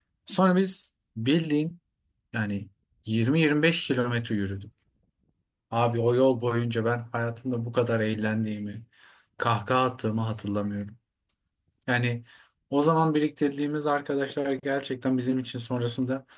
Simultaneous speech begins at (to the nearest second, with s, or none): none